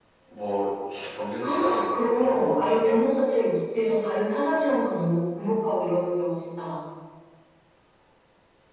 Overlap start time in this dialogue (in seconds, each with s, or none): 1.4 s